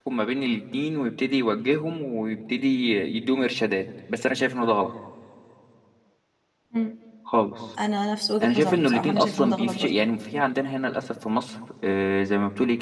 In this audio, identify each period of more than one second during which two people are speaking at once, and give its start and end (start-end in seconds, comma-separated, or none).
8.4-9.9